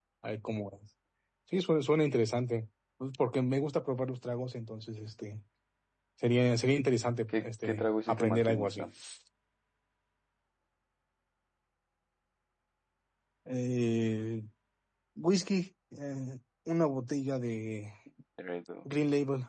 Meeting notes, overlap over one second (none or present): present